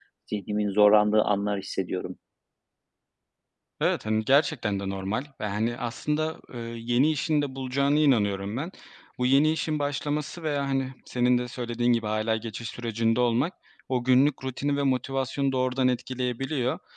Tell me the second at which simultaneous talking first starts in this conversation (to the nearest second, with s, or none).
none